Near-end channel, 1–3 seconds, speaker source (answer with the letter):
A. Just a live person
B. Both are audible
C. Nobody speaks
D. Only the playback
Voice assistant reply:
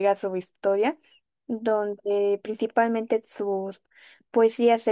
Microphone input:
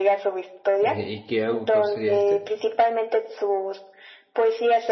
B